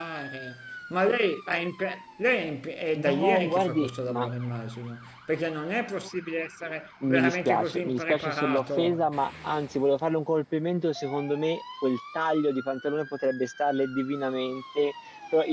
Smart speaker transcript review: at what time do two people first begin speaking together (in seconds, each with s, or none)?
3.0 s